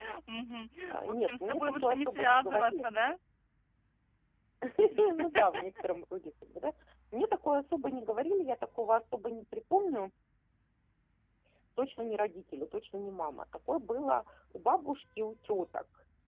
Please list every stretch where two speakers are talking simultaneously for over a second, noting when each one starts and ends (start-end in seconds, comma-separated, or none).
0.9-2.9